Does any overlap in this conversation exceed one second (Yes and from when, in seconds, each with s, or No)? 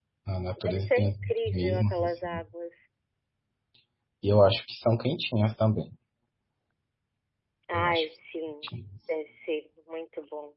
Yes, from 0.6 s